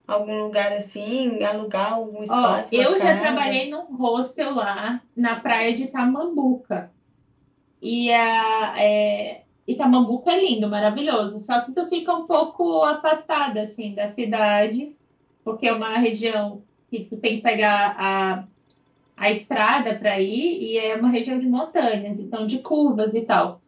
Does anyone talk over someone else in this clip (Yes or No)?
Yes